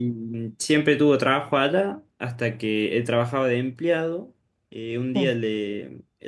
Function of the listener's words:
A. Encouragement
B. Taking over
A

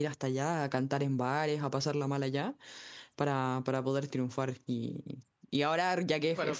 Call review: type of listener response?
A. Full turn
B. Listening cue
B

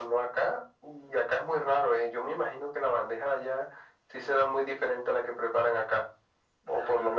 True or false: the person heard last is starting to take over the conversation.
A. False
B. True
A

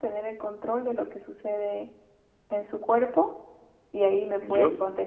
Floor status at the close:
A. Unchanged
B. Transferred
A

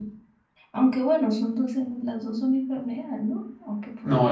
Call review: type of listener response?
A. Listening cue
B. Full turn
B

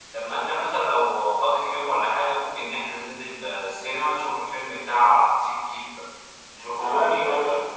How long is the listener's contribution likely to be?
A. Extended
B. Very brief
A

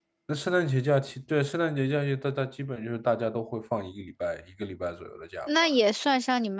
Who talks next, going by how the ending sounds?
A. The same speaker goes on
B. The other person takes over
B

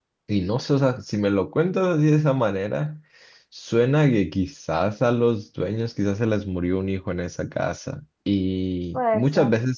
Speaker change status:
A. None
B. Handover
A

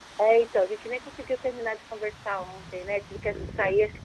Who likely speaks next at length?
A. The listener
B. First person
B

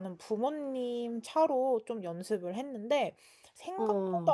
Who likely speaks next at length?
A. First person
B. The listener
A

